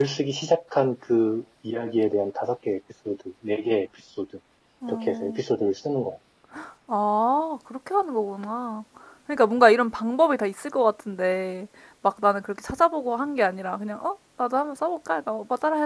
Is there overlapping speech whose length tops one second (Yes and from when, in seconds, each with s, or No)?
No